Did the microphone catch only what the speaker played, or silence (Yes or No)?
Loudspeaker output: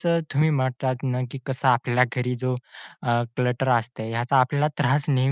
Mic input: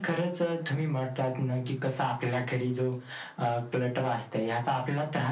Yes